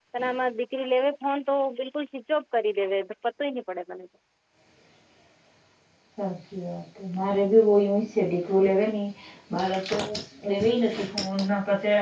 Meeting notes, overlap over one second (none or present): none